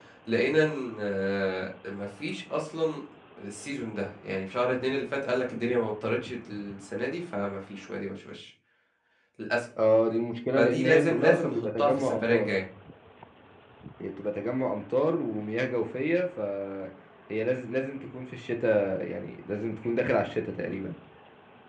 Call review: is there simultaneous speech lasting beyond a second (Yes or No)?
Yes